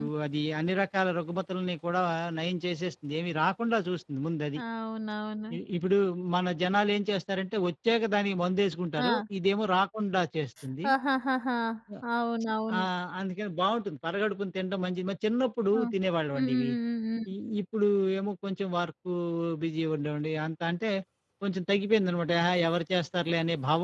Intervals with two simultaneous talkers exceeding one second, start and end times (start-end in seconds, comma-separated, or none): none